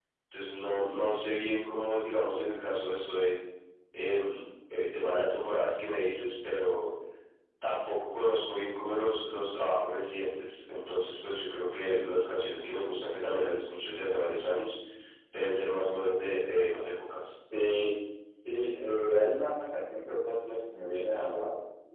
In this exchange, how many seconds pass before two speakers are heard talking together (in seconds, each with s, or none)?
none